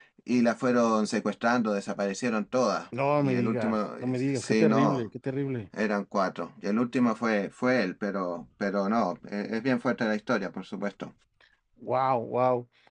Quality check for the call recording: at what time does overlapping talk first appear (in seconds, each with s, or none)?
3.2 s